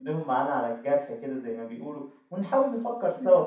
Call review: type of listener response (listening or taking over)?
listening